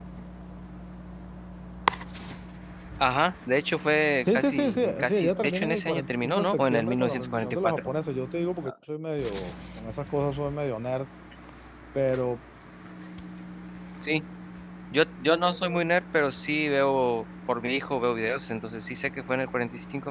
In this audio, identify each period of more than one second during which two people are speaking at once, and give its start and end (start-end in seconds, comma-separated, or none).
4.4-7.9